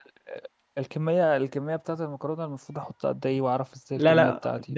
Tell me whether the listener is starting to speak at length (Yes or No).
Yes